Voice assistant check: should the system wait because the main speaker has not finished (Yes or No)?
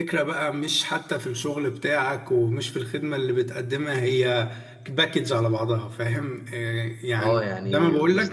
No